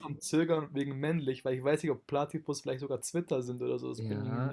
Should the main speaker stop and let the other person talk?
Yes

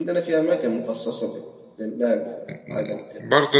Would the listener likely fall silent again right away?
No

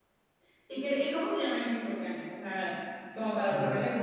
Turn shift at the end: No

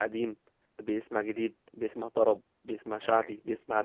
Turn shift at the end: No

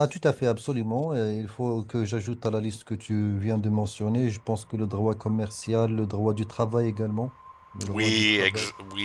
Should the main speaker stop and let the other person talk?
Yes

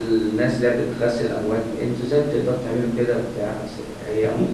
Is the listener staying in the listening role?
No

